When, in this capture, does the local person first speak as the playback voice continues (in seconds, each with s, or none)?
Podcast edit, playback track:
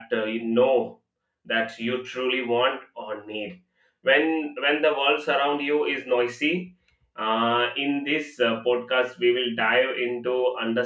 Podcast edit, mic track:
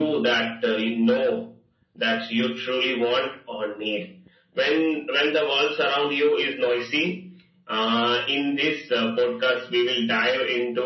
none